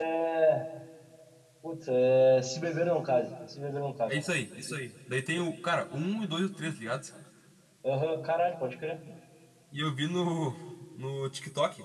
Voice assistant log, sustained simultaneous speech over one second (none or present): none